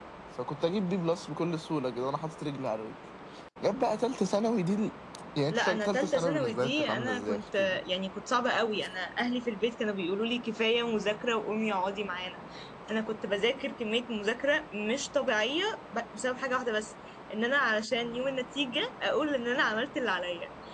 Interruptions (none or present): present